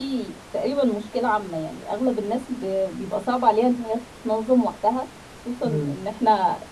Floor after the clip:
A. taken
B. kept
B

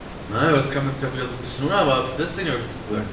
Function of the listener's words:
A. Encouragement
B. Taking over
B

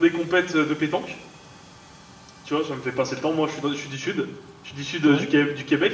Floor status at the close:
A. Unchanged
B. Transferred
A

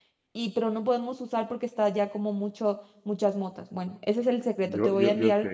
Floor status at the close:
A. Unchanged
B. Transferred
B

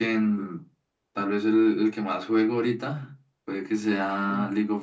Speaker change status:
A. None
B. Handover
A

